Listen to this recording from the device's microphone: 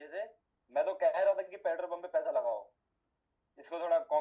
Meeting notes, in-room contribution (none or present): none